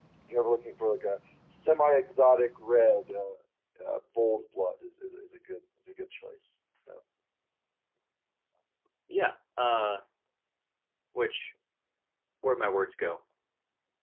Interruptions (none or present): none